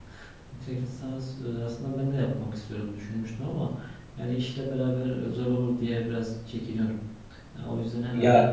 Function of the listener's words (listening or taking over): taking over